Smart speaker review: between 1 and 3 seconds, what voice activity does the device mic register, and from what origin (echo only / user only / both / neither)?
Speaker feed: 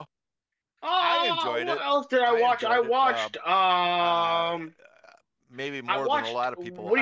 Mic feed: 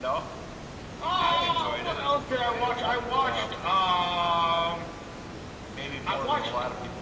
echo only